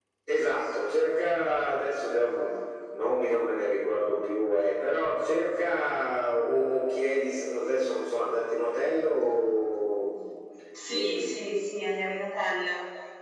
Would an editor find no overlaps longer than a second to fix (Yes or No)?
Yes